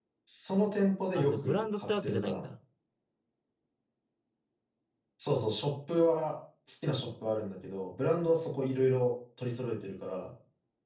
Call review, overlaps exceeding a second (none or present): present